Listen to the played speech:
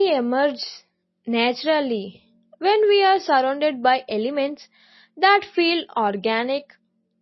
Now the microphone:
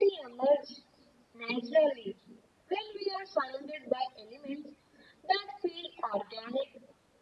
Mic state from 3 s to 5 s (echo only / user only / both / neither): echo only